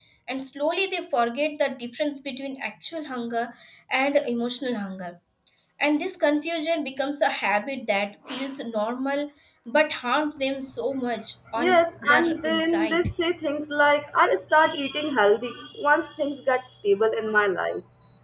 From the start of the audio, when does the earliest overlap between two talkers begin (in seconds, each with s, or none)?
11.6 s